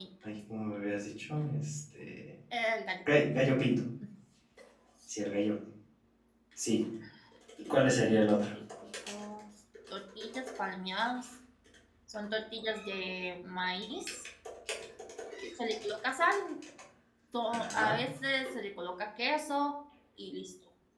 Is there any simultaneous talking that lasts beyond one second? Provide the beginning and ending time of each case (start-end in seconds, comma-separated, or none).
none